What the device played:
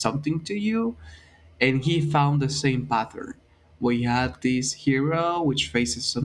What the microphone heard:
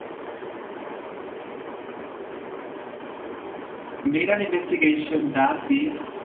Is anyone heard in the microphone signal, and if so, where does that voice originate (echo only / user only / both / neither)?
user only